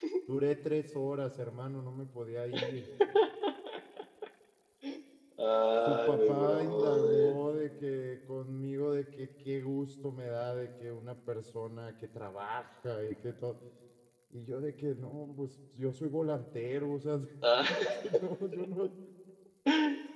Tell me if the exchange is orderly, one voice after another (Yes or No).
No